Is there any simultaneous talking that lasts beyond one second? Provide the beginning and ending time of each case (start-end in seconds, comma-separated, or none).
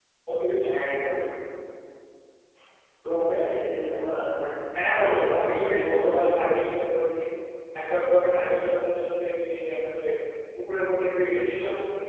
4.9-6.5